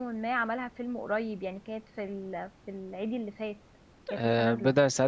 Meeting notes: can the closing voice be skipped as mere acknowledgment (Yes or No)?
No